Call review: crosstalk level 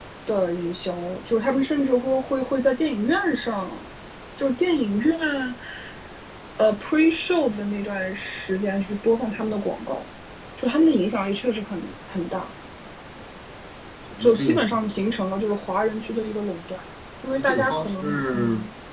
present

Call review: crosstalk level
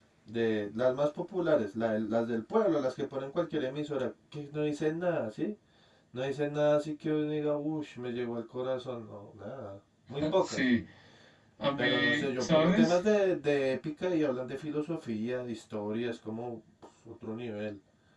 present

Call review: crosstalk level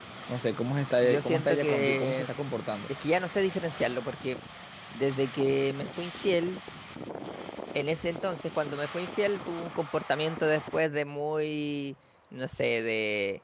present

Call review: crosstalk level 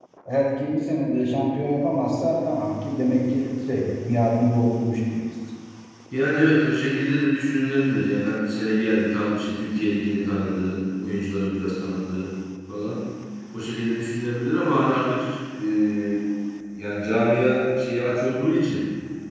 none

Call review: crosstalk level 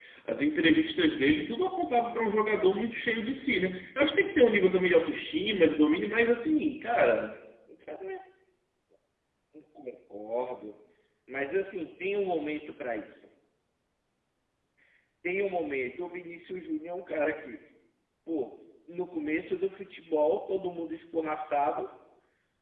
none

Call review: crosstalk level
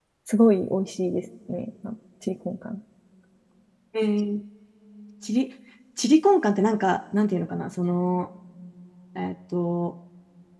none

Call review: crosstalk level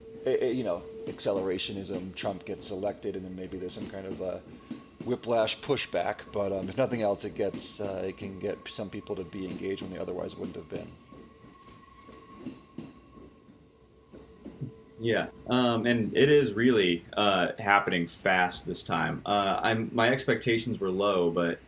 none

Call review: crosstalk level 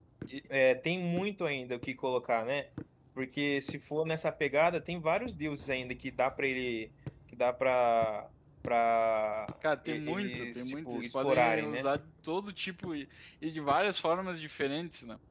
present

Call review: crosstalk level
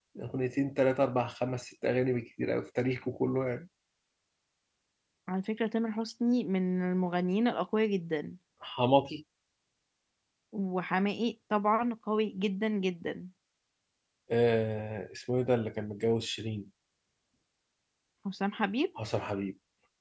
none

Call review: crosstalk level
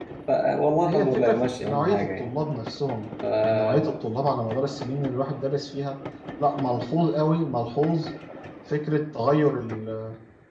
present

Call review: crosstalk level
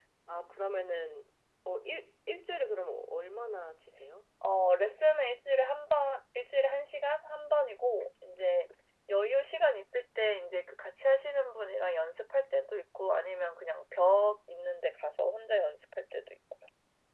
none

